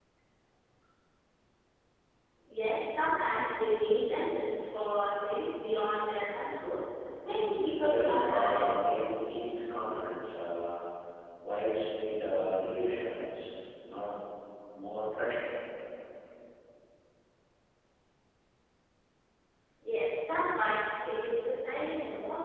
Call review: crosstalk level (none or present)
present